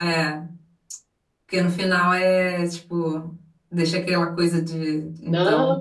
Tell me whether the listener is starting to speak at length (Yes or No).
Yes